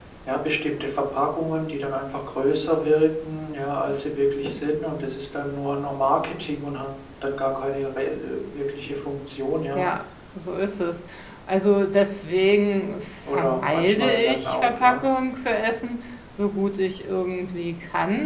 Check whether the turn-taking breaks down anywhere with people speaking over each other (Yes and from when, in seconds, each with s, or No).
Yes, from 13.2 s